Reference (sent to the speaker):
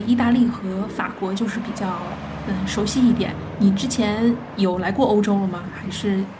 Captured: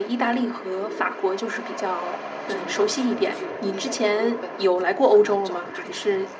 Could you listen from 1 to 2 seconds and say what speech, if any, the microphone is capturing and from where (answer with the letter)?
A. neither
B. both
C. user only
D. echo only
D